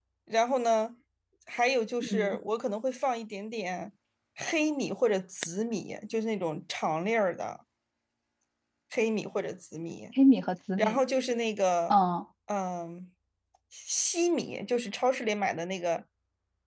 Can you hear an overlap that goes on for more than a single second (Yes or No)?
No